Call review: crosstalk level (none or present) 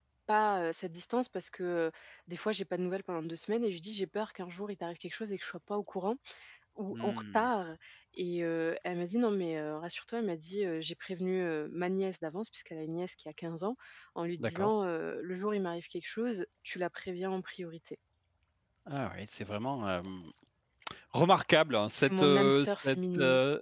present